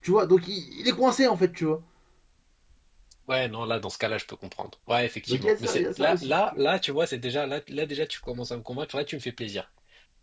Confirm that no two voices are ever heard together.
No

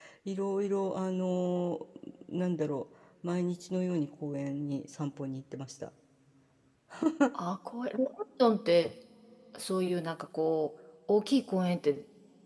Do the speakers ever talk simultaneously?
No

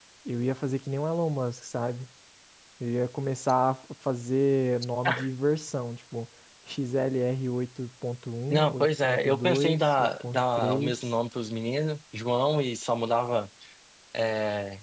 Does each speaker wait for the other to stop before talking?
No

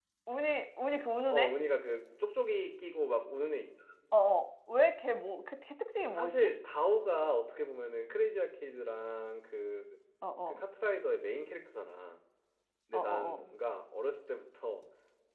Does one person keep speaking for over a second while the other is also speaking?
No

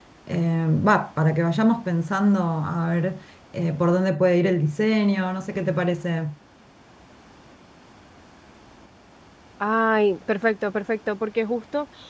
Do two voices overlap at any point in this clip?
No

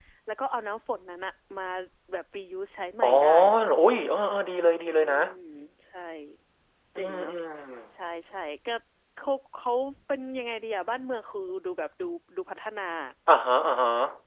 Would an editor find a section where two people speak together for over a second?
No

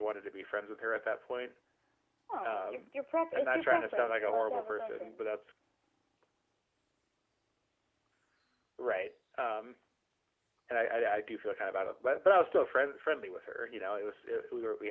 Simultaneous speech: Yes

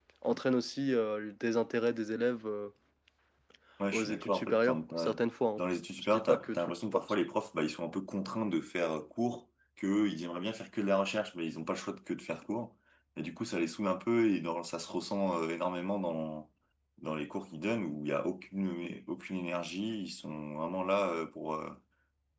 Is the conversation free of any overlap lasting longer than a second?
No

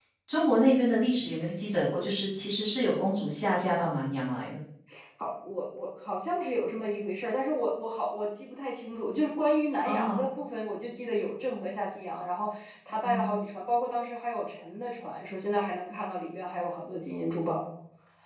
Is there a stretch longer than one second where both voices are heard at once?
No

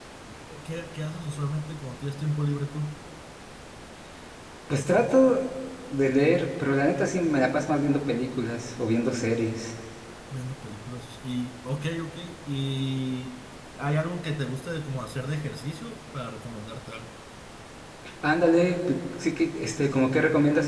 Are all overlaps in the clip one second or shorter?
Yes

